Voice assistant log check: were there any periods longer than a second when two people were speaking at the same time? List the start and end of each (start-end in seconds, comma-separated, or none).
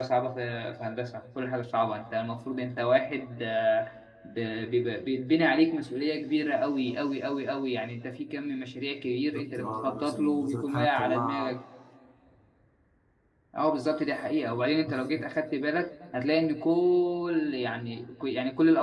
9.3-11.5